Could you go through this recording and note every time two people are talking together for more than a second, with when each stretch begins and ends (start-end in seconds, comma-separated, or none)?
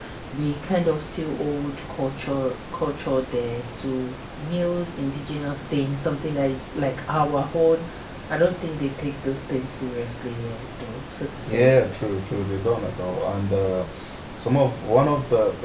none